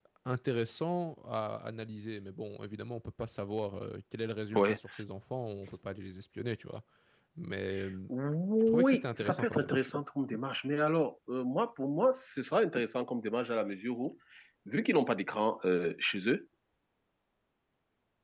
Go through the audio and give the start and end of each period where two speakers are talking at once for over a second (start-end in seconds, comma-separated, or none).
8.7-9.9